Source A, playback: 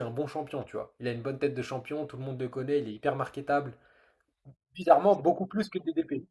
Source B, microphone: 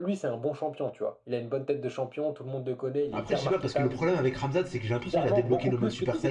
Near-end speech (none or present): present